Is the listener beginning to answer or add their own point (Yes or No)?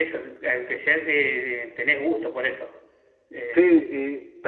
Yes